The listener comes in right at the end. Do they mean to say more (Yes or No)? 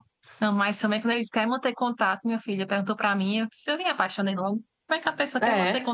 No